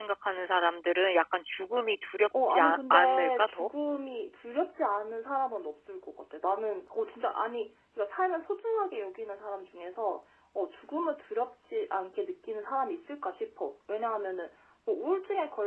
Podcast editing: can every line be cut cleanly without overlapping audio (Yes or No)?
No